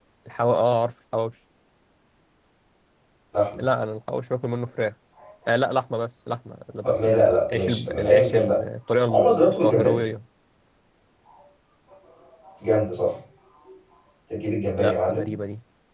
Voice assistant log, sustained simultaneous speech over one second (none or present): present